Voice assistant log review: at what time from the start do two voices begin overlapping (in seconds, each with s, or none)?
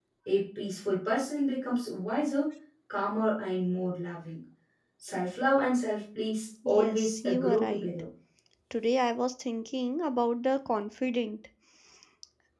6.7 s